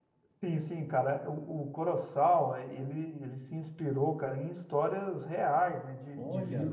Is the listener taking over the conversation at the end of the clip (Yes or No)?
No